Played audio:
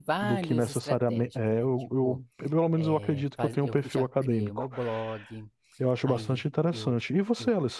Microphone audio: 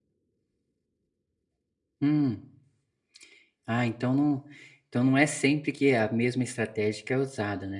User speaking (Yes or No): Yes